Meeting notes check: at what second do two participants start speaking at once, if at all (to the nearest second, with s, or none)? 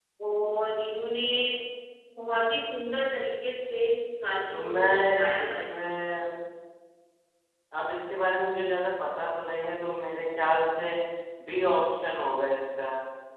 5 s